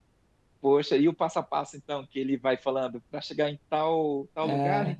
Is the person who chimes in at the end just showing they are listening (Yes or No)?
Yes